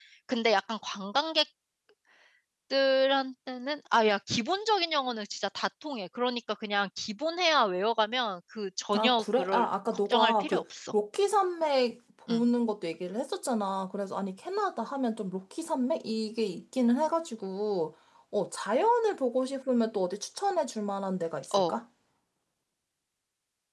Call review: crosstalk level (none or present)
present